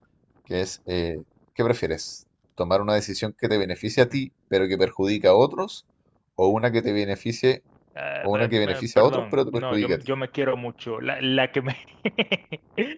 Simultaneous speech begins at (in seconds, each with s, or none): 8.2 s